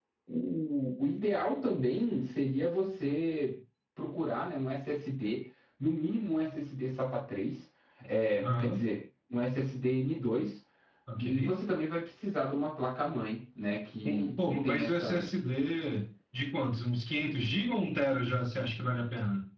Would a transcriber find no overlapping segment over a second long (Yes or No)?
No